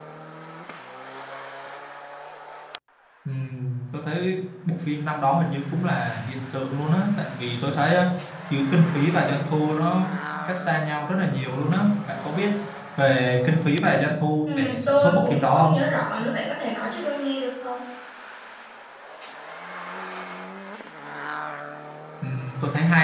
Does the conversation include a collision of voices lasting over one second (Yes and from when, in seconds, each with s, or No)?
Yes, from 14.5 s